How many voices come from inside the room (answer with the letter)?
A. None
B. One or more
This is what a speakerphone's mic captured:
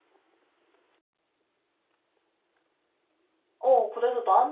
B